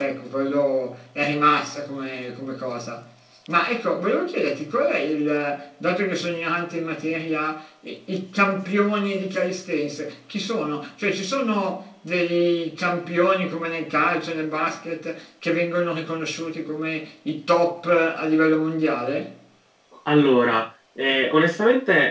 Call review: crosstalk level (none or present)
none